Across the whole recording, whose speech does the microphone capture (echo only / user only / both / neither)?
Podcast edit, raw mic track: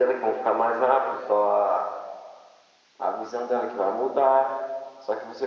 echo only